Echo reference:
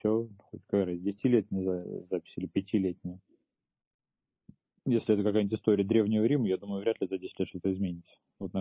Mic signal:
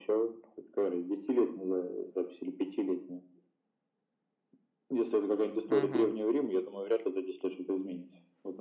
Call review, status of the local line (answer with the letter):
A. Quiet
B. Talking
B